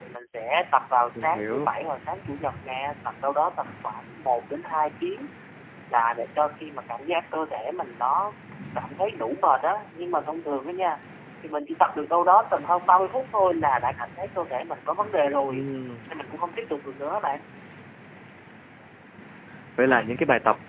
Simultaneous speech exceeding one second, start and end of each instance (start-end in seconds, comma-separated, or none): none